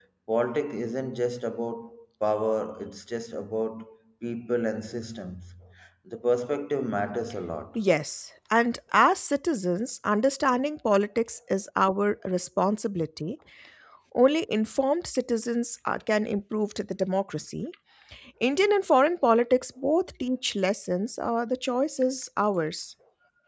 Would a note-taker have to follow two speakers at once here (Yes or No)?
No